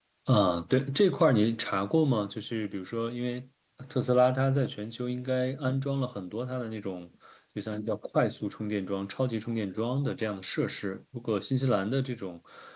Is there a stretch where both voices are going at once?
No

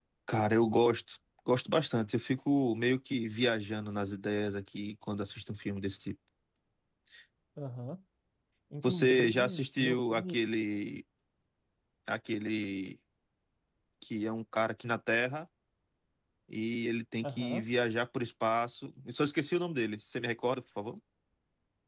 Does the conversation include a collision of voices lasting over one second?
Yes, from 8.8 s

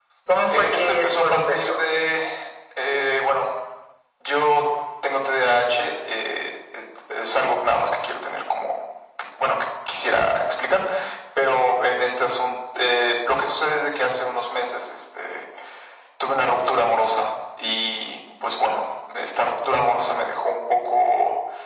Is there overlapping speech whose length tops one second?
Yes, from 0.6 s

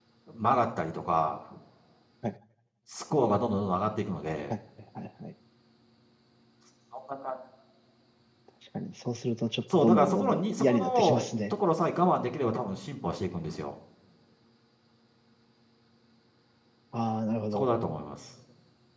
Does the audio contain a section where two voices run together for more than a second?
Yes, from 9.7 s

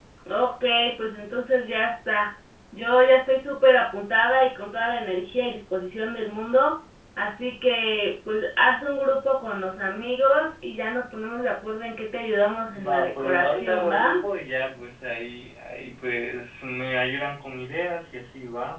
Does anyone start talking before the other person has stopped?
Yes, from 12.7 s

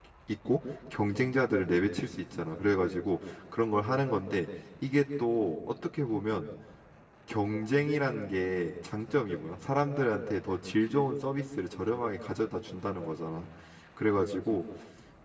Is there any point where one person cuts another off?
No

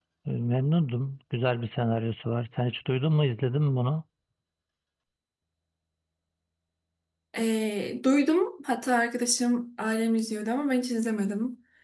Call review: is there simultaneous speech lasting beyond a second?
No

